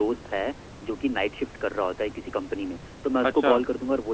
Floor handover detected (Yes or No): No